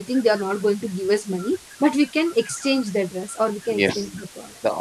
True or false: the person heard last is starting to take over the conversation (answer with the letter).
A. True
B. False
A